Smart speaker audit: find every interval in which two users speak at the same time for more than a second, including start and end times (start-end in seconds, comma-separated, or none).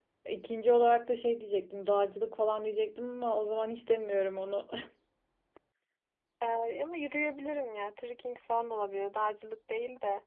none